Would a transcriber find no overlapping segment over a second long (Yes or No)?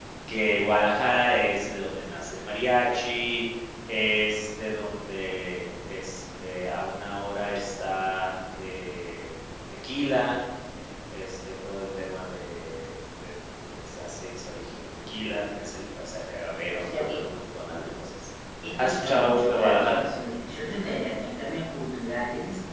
No